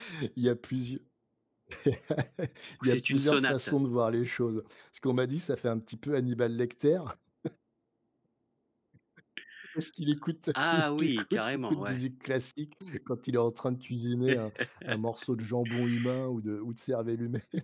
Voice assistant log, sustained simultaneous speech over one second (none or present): present